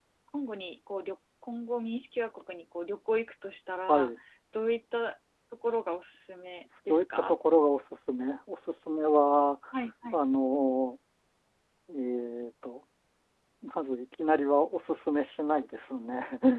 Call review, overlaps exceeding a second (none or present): none